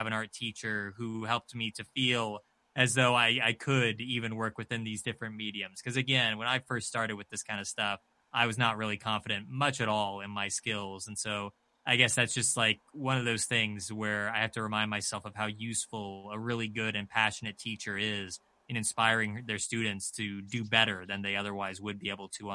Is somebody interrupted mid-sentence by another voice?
No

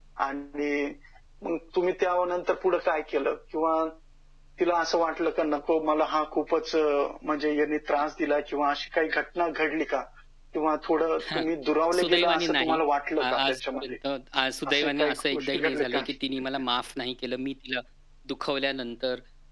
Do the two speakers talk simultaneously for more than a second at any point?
Yes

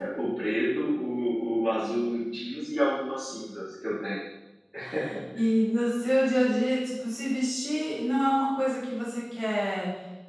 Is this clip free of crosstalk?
Yes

